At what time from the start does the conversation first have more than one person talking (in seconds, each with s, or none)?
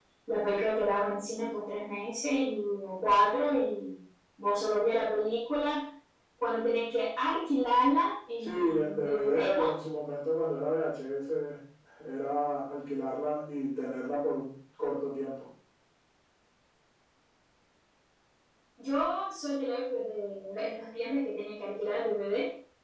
8.4 s